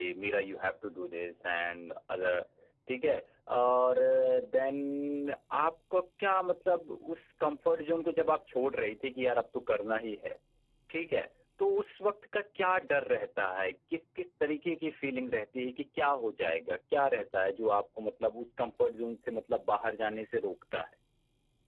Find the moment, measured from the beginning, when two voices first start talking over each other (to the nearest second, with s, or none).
none